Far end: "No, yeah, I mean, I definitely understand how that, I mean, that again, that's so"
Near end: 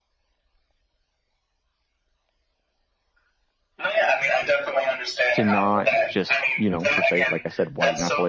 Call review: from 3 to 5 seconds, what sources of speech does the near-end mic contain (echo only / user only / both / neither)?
echo only